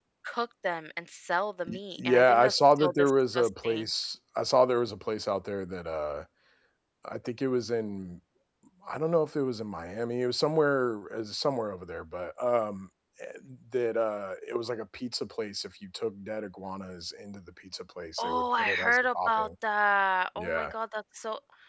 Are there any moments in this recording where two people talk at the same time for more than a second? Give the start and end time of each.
1.7-3.9, 18.2-19.5

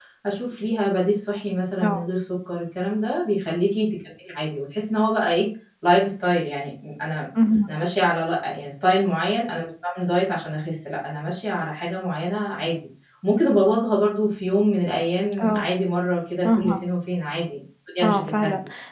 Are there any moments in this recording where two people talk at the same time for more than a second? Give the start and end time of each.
none

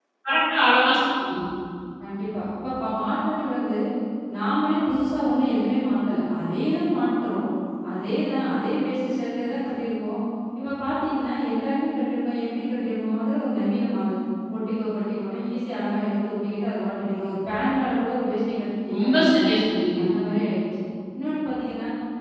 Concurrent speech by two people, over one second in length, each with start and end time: none

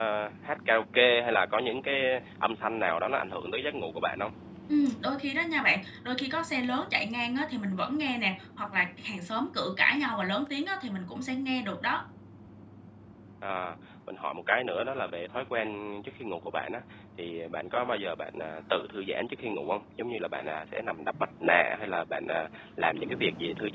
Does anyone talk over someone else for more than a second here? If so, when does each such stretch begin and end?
none

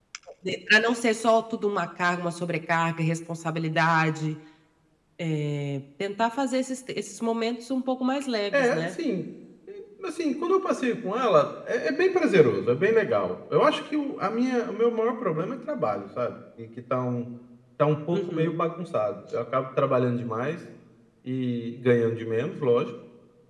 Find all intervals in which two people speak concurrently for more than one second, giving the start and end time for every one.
none

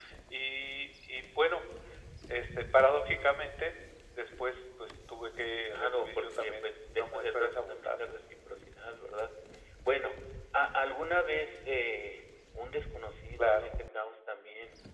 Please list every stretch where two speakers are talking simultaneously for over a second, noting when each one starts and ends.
5.7-8.1

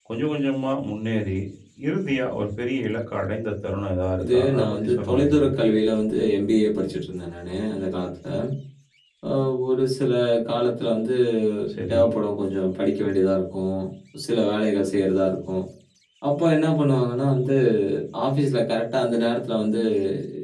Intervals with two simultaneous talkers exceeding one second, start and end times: 4.2-5.5

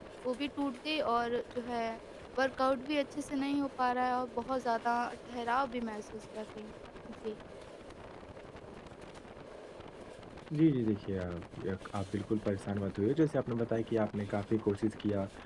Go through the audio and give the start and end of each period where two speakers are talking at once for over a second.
none

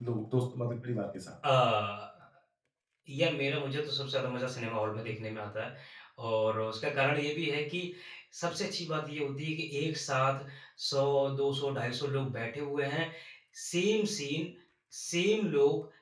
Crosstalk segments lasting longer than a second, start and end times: none

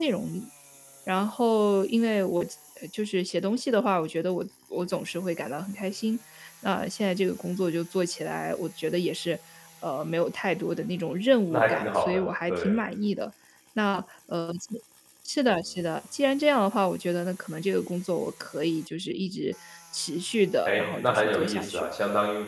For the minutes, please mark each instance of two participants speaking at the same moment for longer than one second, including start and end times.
11.5-12.8, 20.6-21.9

